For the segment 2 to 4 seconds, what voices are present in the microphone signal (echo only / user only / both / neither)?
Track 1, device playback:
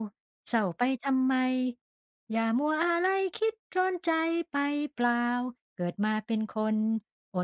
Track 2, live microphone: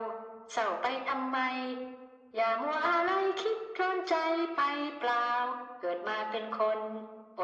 echo only